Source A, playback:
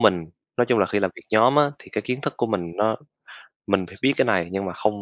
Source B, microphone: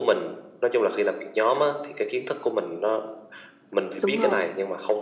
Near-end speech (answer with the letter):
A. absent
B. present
B